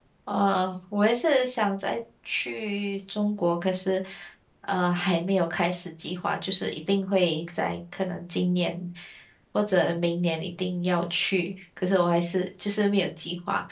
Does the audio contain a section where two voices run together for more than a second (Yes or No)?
No